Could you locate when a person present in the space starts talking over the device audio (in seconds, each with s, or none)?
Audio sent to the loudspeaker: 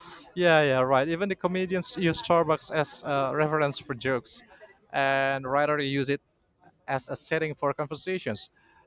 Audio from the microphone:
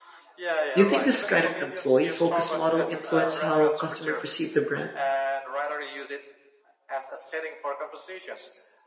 0.7 s